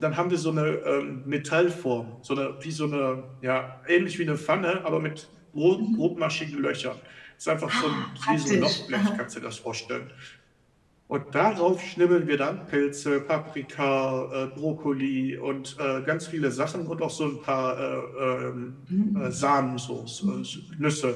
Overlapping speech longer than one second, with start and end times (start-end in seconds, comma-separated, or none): 7.8-9.1